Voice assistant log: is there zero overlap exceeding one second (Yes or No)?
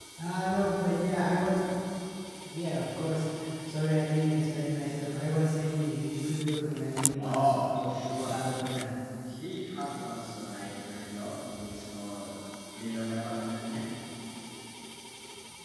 No